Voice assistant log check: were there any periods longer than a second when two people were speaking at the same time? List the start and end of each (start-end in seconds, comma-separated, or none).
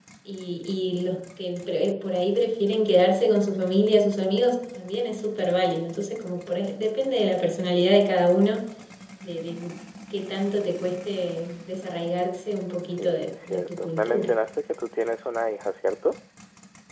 13.0-14.3